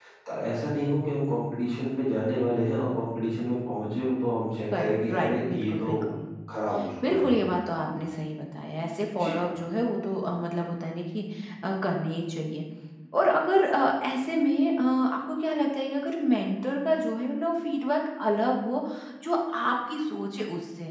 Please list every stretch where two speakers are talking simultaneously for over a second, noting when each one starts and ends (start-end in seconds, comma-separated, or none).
4.7-6.0